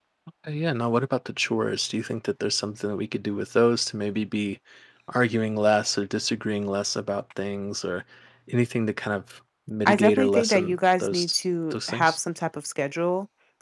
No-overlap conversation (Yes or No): No